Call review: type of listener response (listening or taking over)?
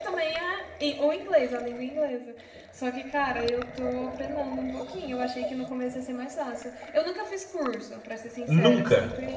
listening